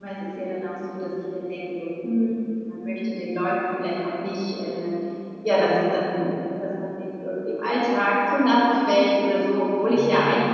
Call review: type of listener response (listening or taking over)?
listening